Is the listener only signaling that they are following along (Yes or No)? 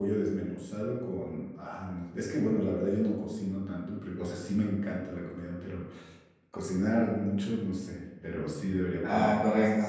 No